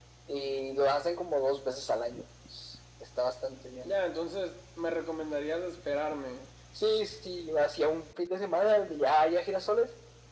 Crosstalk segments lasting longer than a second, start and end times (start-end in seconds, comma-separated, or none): none